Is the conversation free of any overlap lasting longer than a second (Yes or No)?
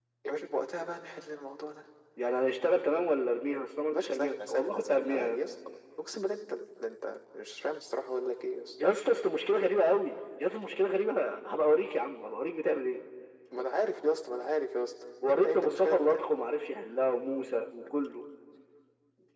No